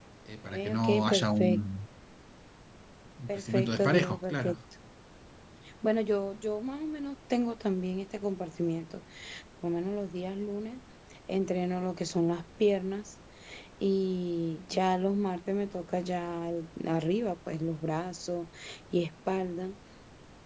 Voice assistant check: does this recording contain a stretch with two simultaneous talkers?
Yes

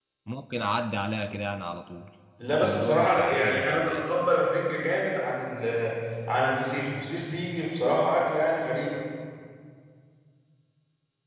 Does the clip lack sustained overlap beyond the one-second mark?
No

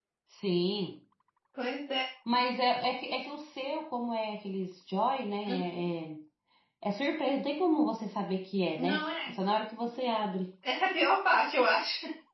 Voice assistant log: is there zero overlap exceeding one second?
Yes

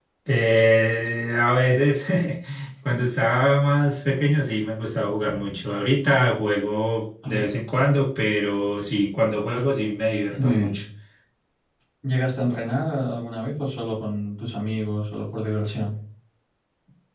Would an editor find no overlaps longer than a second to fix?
Yes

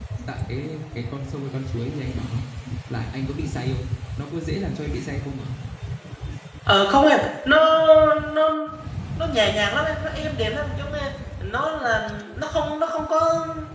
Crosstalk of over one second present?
No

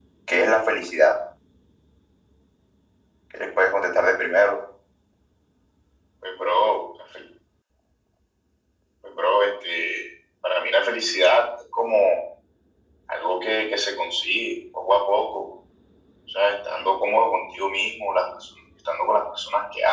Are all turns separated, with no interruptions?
Yes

